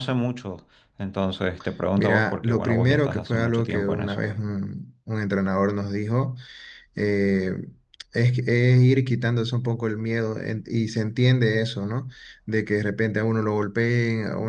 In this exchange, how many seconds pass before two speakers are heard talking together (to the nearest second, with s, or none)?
2 s